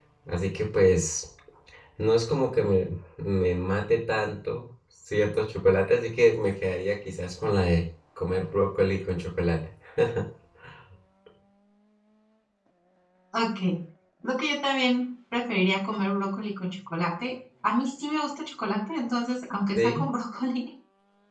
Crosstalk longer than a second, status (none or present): none